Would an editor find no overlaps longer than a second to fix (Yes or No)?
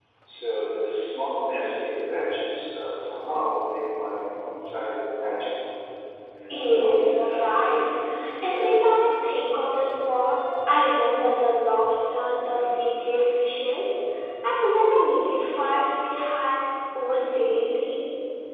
No